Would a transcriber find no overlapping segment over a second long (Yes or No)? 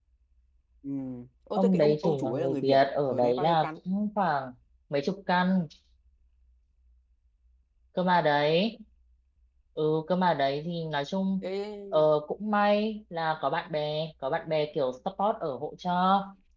No